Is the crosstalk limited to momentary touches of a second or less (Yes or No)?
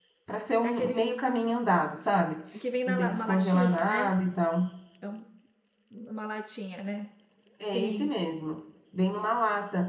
No